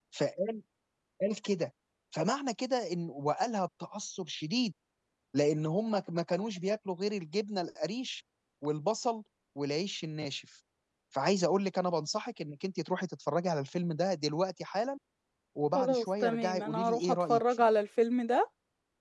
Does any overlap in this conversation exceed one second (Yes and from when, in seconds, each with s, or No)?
Yes, from 15.7 s